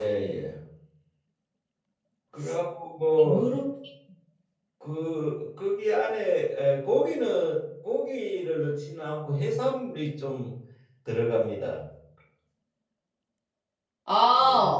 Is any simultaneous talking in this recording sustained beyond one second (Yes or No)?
No